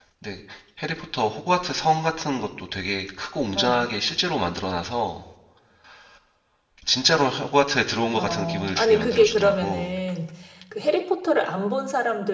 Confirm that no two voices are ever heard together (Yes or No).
No